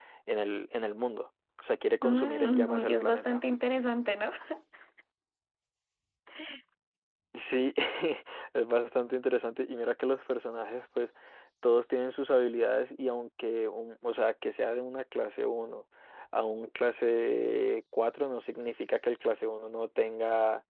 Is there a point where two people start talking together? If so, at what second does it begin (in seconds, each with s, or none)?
2.0 s